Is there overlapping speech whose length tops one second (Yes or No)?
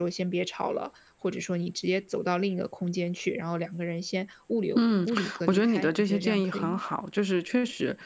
Yes